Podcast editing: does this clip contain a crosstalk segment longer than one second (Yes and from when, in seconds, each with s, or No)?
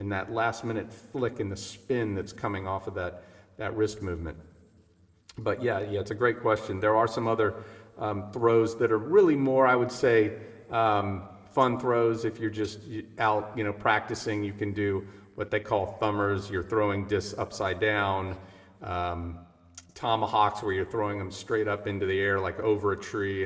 No